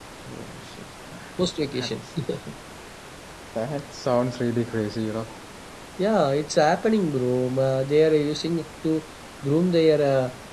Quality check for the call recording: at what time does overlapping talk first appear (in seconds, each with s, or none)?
none